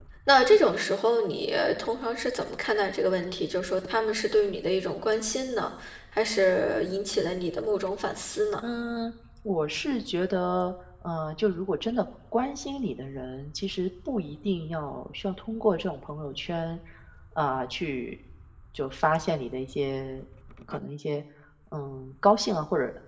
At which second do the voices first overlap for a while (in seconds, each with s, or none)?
none